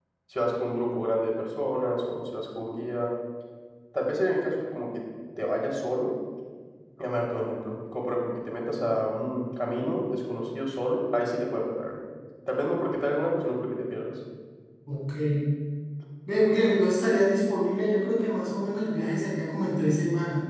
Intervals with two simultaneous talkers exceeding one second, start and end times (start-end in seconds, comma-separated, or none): none